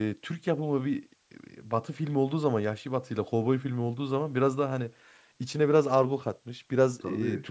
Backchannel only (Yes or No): Yes